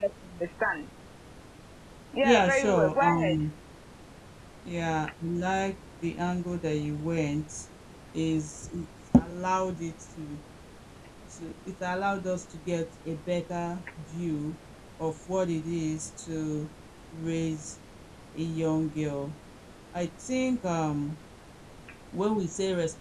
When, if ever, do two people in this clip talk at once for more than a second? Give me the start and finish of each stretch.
2.2-3.4

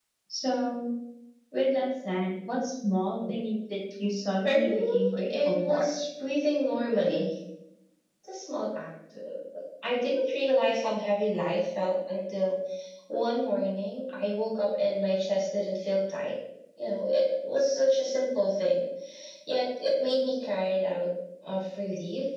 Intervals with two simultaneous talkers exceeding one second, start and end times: 4.5-5.8

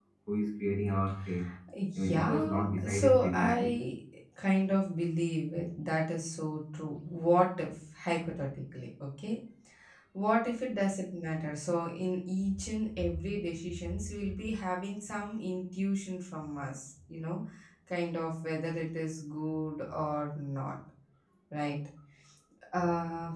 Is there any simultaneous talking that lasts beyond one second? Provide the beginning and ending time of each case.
1.9-3.8

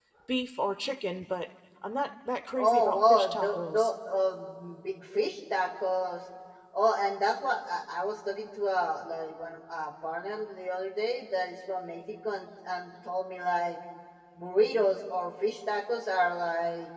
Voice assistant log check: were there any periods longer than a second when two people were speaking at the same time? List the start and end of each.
2.6-3.9

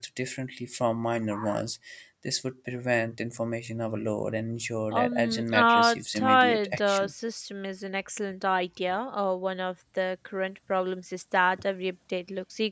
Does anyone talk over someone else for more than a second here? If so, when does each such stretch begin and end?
4.9-7.1

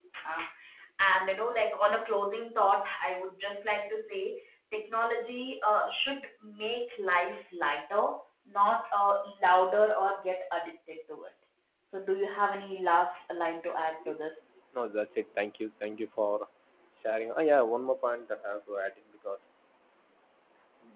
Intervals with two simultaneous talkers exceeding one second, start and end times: none

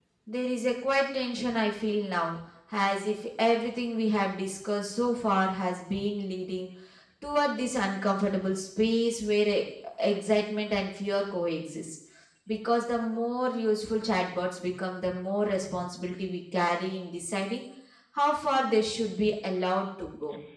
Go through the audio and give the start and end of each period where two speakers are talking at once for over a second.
none

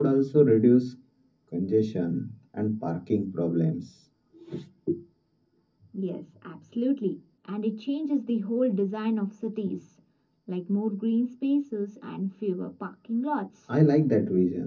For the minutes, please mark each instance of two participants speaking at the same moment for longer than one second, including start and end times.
none

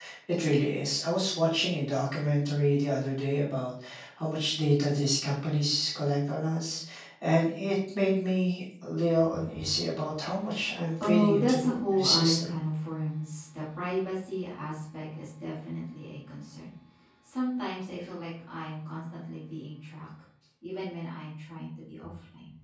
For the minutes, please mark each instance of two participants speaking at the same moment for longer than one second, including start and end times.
11.0-12.5

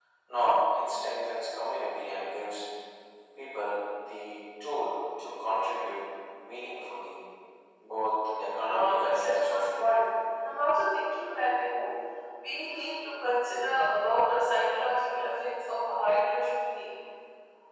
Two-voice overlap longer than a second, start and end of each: 8.6-9.9

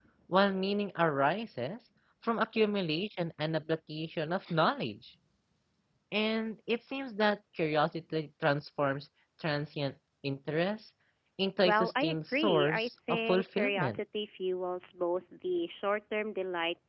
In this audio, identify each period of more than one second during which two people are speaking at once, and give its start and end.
11.6-14.0

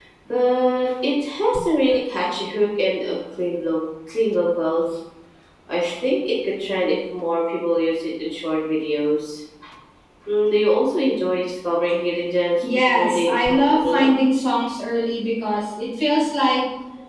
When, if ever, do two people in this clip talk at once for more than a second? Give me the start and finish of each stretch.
12.7-14.1

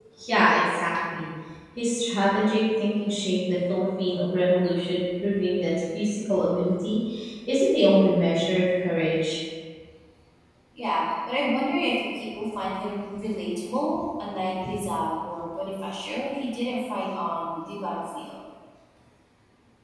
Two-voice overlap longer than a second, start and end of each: none

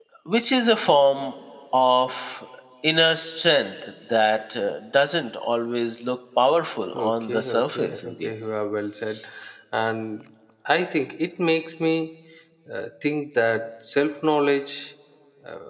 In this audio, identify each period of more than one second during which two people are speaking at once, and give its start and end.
6.9-8.3

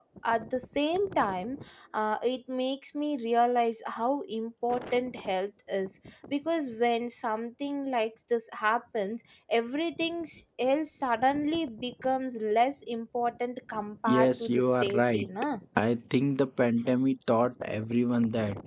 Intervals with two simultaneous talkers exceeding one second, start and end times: 14.1-15.3

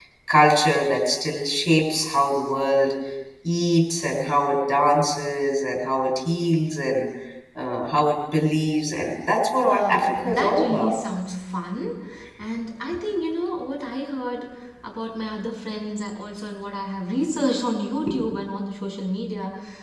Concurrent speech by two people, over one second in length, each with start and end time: 9.6-10.9

